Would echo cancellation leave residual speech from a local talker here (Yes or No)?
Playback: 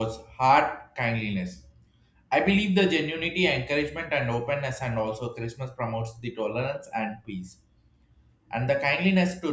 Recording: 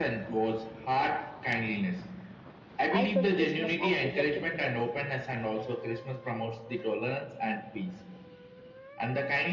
Yes